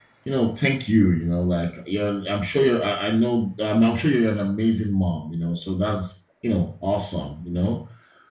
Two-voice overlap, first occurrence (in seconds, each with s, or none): none